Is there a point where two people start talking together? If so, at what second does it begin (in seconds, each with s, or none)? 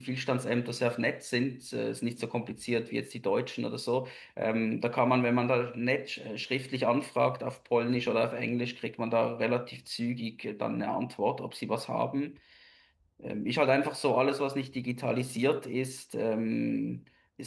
none